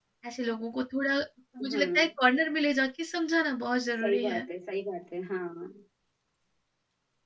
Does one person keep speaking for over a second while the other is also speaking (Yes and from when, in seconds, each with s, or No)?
No